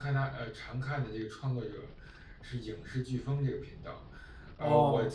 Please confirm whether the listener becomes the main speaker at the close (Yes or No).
No